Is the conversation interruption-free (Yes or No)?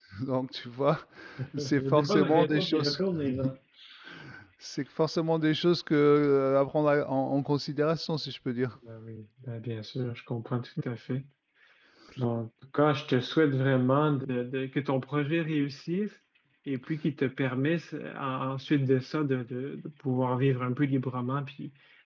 No